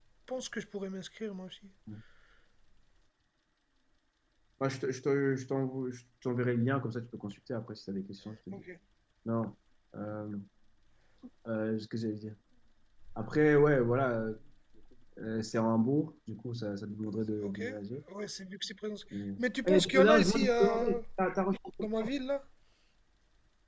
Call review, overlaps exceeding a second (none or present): present